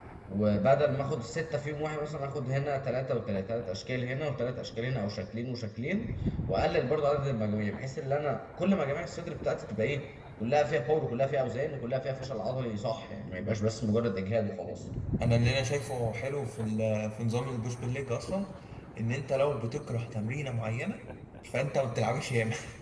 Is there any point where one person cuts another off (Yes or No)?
No